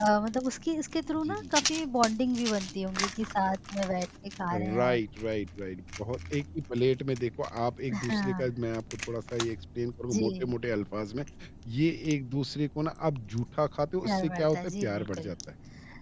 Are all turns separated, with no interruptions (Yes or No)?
No